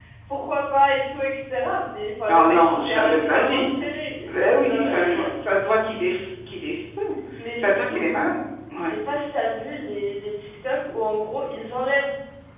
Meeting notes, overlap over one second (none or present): present